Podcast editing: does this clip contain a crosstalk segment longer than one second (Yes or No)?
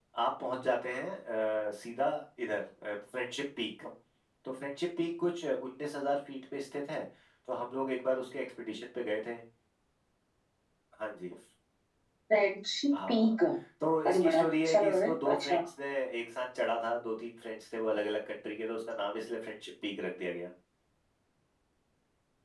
Yes